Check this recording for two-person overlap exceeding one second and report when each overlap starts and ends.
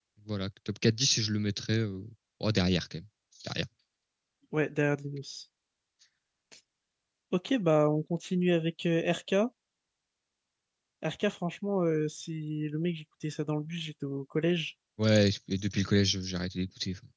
none

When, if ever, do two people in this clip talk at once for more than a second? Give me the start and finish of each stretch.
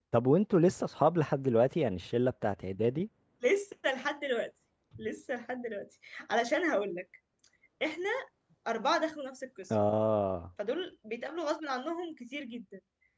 none

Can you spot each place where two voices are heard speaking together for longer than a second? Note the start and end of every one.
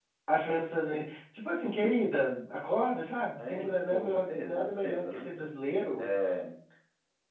3.5-5.3

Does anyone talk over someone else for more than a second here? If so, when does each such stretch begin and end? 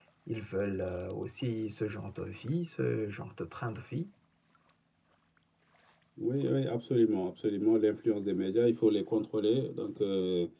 none

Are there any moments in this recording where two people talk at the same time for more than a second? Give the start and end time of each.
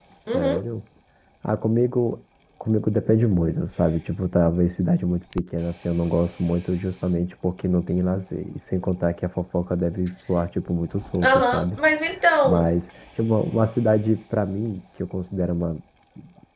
none

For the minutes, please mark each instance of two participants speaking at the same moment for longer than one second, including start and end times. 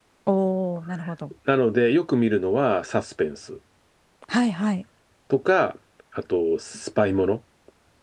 none

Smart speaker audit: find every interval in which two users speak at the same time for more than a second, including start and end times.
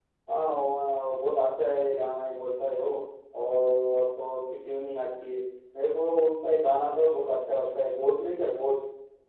none

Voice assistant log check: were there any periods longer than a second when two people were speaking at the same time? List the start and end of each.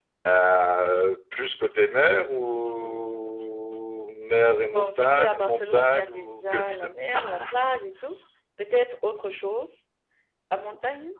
4.7-6.8

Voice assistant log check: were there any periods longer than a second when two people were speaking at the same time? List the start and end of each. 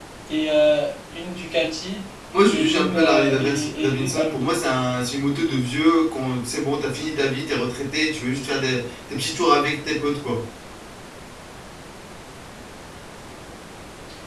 2.5-4.5

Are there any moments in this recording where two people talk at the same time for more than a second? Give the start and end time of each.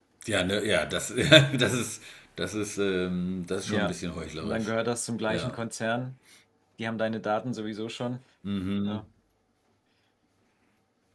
none

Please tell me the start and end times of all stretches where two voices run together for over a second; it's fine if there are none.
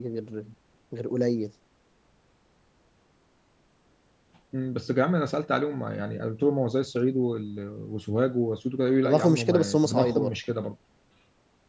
9.0-10.3

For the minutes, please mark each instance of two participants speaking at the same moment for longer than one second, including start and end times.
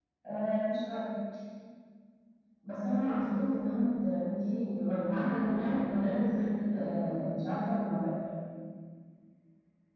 5.0-6.2

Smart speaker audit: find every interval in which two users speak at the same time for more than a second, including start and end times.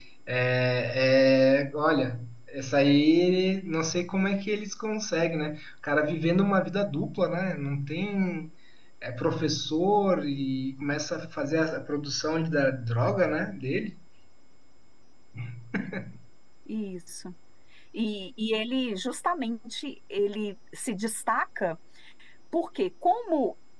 none

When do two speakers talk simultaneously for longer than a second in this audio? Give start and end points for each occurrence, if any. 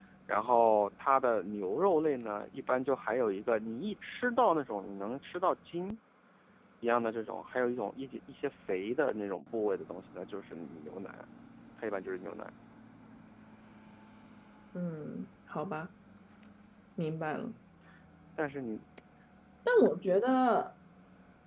none

